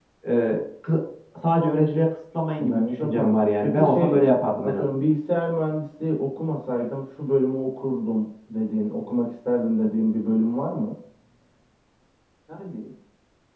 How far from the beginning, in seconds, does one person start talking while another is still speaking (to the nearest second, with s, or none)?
3 s